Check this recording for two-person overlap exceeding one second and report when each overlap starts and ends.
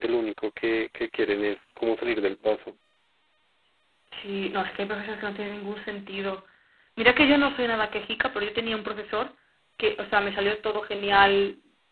none

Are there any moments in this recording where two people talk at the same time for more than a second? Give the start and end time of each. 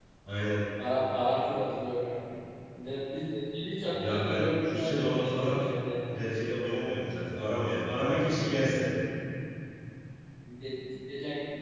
3.9-5.6

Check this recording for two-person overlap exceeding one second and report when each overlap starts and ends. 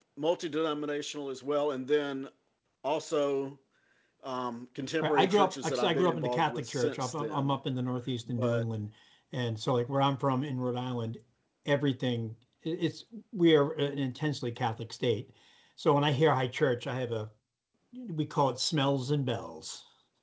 5.0-7.6

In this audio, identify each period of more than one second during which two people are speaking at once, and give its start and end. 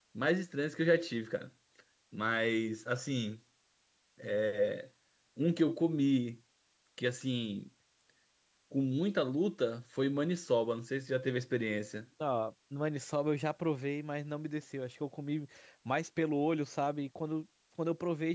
none

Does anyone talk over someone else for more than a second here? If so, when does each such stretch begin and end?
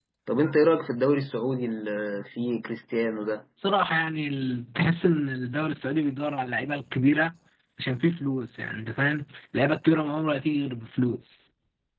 none

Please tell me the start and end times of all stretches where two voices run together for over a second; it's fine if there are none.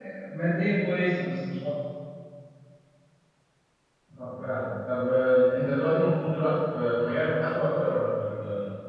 none

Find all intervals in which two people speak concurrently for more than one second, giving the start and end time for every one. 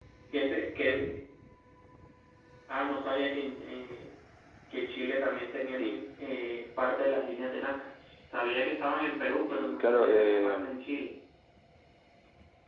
9.5-10.7

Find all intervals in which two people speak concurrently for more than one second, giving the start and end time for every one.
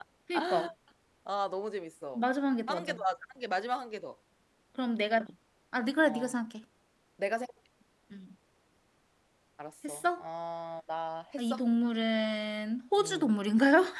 none

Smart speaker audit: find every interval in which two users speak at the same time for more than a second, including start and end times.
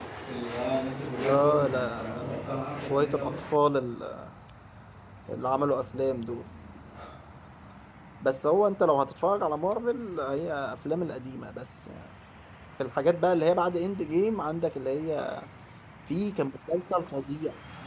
1.2-3.3

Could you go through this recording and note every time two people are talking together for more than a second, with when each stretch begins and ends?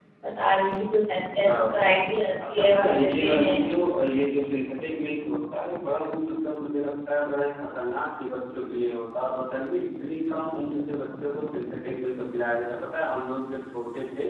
2.5-3.7

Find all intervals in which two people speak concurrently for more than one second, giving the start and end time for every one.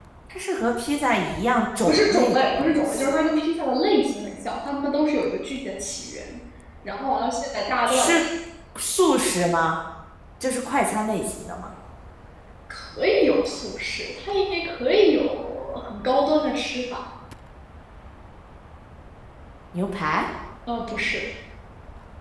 1.9-3.1

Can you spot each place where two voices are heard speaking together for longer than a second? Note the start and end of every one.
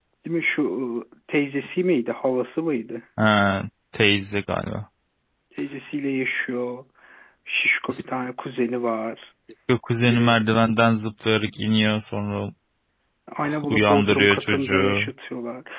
13.7-15.1

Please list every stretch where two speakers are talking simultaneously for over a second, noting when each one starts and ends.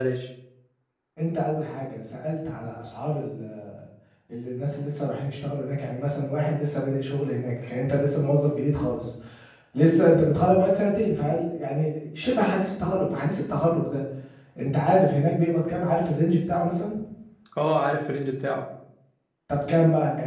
none

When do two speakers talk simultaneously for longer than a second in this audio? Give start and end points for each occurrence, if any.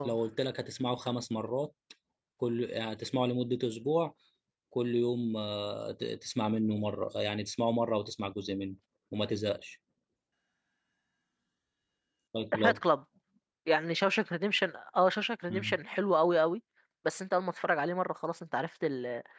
none

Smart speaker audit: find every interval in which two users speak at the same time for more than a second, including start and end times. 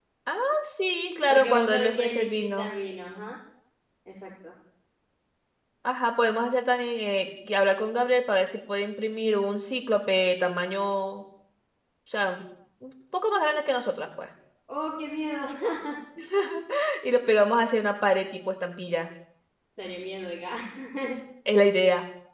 1.3-2.7

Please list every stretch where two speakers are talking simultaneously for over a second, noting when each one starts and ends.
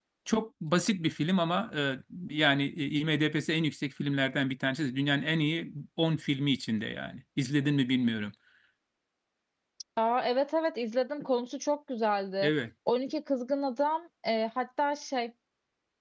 none

